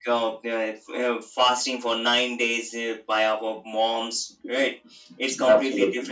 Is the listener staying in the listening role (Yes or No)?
Yes